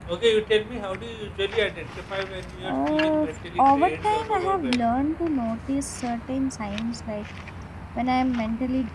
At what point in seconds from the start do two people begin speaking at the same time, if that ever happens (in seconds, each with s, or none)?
2.6 s